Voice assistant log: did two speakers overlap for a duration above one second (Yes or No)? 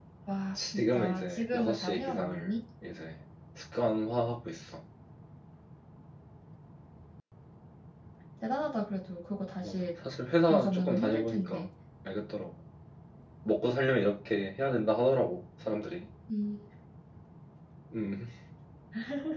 Yes